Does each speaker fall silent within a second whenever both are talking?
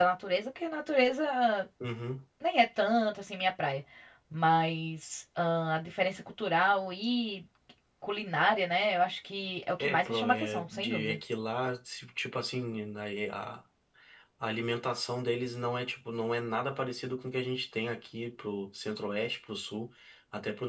No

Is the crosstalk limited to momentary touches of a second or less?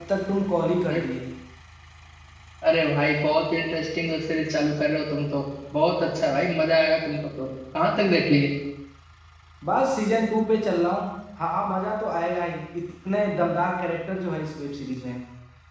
Yes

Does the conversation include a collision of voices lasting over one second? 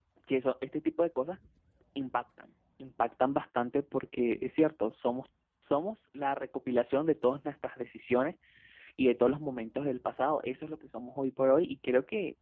No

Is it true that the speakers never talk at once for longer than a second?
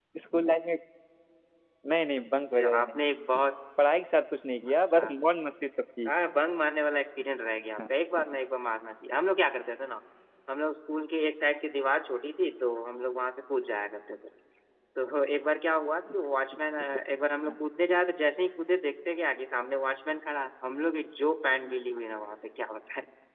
Yes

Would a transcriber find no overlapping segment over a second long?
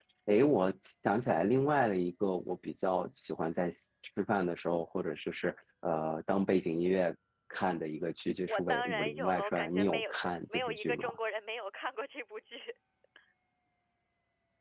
No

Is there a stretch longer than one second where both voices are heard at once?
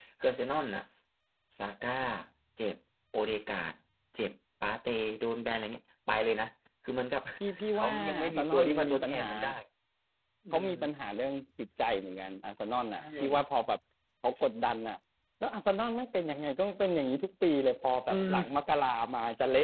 Yes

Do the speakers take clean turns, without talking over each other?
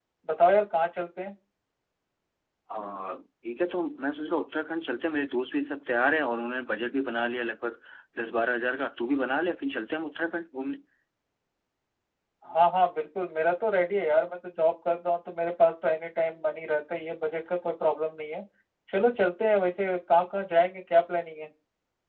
Yes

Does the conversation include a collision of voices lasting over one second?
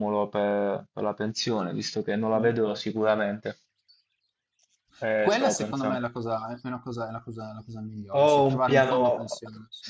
Yes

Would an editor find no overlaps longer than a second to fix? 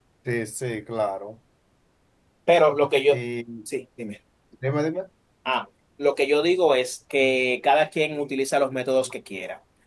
Yes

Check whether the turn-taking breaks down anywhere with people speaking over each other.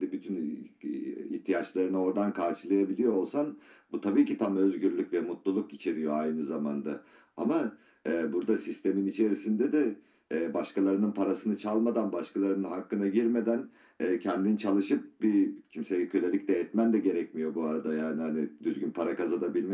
No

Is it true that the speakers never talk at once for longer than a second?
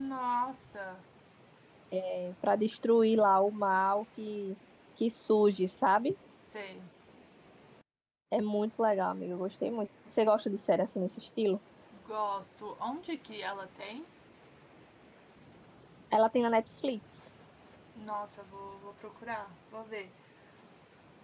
Yes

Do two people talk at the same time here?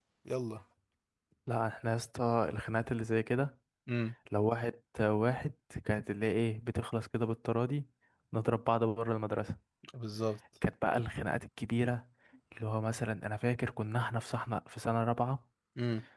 No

